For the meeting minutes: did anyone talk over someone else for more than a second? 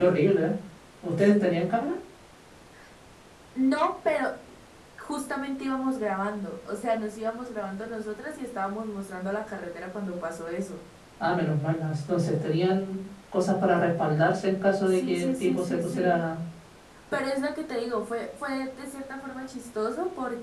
Yes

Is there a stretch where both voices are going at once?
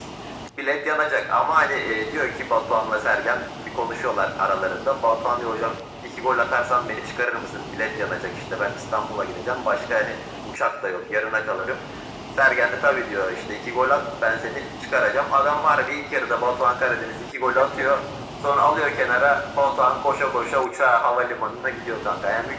No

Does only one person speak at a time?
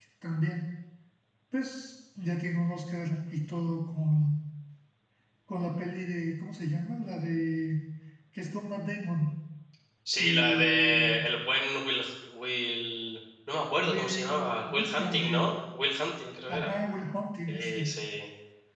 No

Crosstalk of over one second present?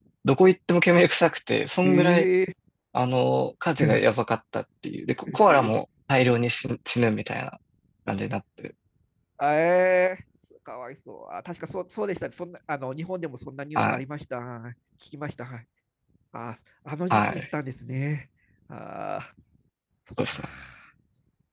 No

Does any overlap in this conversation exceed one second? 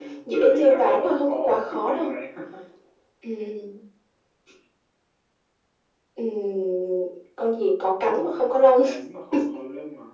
Yes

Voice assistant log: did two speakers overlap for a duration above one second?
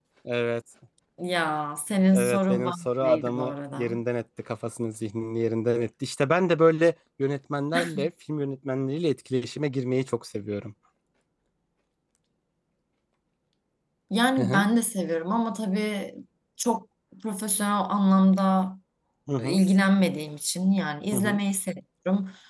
Yes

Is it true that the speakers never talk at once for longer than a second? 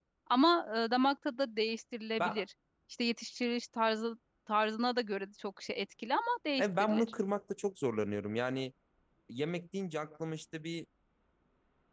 Yes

